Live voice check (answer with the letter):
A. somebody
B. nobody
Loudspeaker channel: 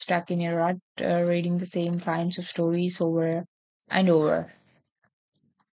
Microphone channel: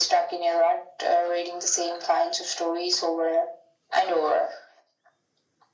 B